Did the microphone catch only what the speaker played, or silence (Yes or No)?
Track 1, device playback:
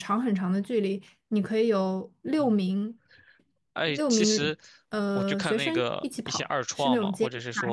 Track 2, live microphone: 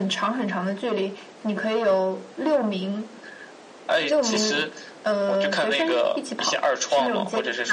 Yes